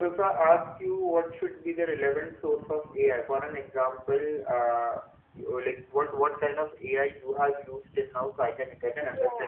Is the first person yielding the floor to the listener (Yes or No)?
Yes